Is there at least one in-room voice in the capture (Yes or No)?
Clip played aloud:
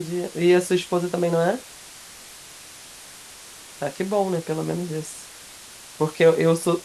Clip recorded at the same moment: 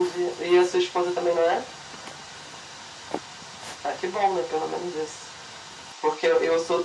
No